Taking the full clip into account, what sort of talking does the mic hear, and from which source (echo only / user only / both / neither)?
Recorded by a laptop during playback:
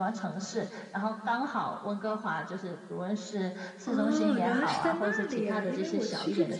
both